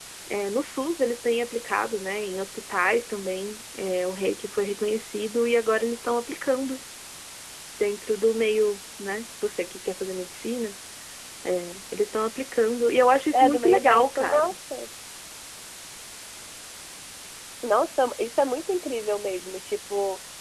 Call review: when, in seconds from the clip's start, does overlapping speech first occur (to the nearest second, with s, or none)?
13 s